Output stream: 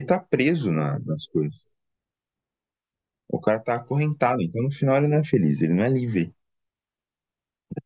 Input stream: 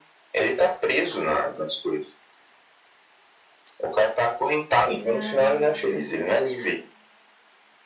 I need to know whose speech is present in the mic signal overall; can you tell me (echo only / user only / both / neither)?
both